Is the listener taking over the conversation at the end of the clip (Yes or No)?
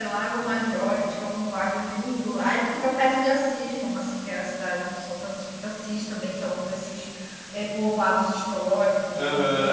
No